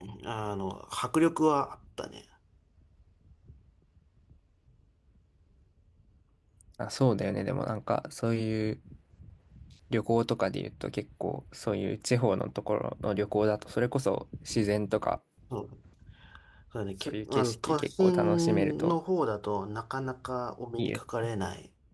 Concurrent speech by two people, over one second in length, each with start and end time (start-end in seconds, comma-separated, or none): 17.0-18.9